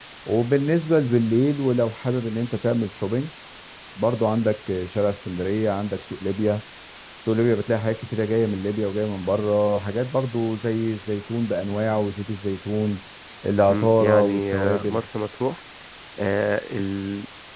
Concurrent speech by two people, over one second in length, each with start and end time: 13.7-15.0

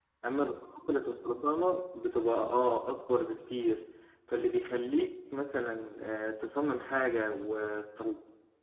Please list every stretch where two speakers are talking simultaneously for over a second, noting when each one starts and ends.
none

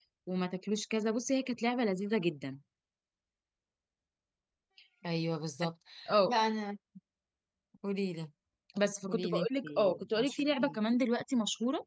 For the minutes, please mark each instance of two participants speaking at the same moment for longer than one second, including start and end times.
9.1-10.8

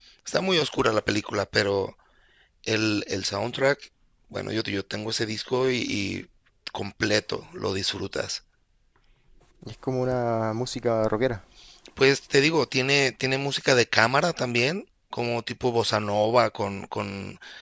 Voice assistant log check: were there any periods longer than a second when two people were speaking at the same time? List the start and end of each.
none

